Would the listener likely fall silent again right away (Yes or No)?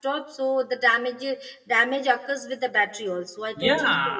No